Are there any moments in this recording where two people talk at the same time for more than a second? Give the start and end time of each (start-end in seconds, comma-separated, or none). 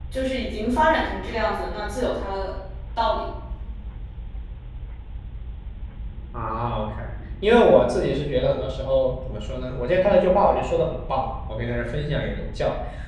none